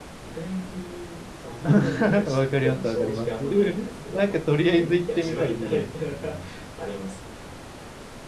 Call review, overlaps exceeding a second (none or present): present